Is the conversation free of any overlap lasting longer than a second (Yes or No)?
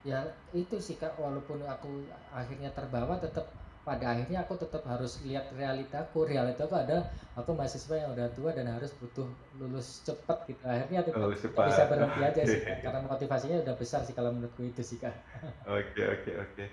No